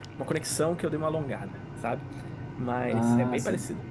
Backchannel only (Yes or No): Yes